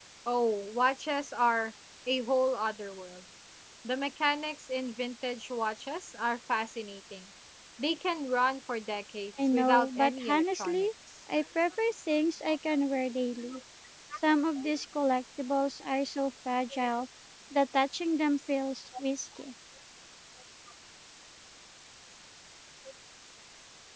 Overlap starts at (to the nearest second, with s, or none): 9 s